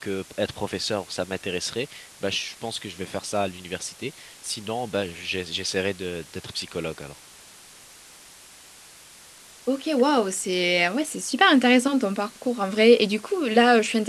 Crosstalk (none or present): none